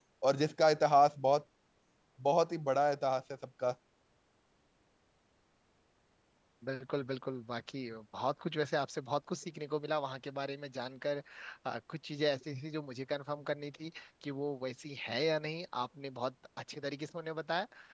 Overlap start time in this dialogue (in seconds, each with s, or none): none